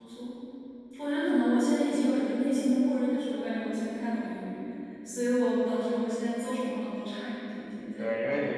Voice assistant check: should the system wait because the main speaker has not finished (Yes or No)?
No